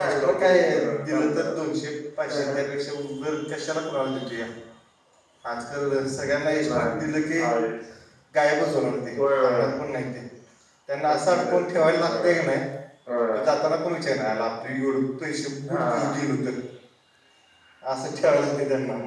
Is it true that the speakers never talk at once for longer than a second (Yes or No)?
No